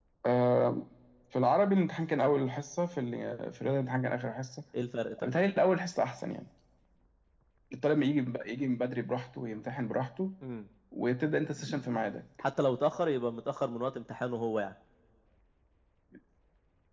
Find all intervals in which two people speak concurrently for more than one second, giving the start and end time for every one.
none

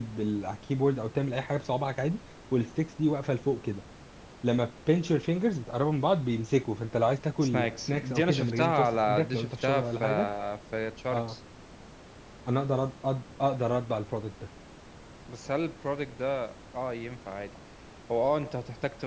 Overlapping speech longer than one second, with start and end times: 7.4-10.0

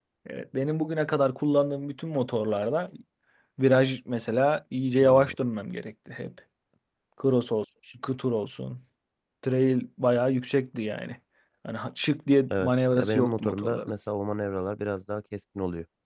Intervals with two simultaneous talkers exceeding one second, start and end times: 12.5-13.9

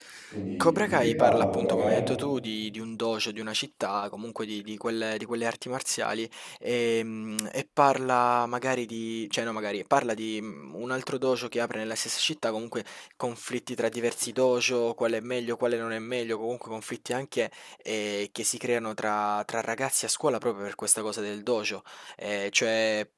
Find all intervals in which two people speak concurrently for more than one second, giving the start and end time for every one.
0.6-2.0

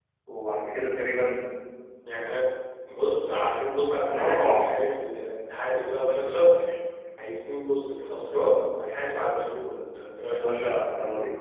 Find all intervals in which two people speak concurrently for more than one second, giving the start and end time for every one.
none

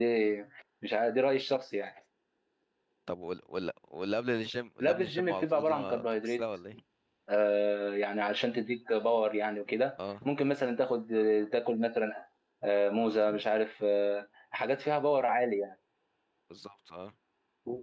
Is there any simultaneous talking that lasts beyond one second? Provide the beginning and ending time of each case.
4.8-6.4

